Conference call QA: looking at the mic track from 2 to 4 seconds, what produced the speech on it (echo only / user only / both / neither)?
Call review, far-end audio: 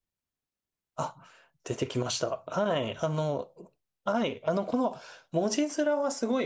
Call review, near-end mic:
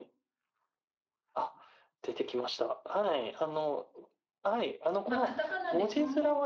echo only